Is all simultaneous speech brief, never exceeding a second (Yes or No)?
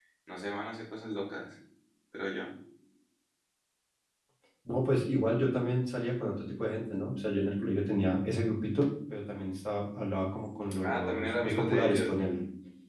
No